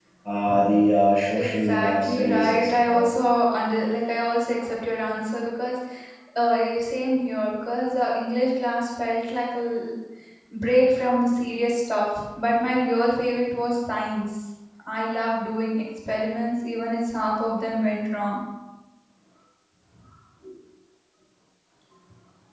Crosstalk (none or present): present